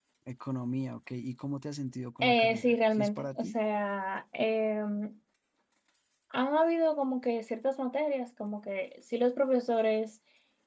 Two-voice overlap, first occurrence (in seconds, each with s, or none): 2.2 s